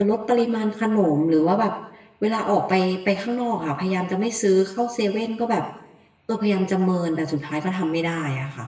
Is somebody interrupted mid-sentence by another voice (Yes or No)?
No